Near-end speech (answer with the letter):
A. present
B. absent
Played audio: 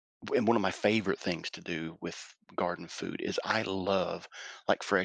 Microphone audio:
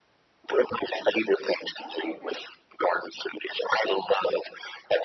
A